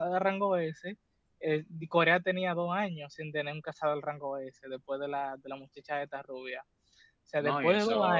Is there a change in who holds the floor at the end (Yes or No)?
Yes